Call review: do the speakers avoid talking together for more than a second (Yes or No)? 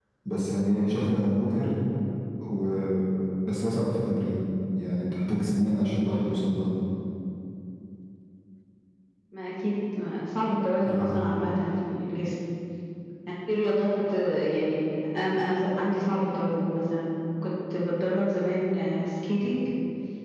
Yes